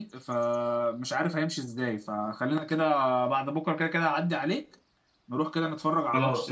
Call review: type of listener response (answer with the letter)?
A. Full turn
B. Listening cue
A